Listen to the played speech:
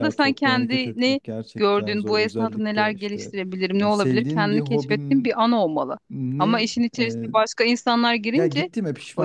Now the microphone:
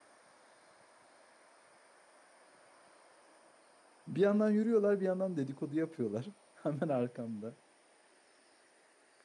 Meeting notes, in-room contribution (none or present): present